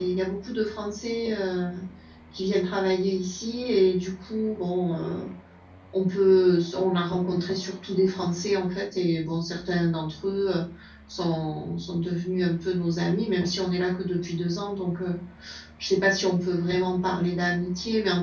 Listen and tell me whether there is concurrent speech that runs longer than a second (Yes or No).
No